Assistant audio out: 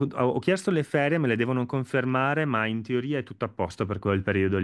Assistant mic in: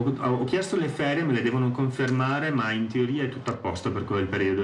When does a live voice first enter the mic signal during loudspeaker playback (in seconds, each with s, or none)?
none